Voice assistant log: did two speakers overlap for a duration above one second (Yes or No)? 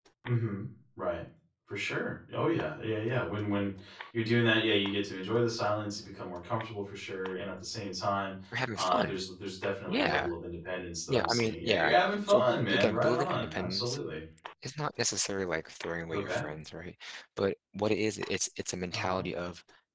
Yes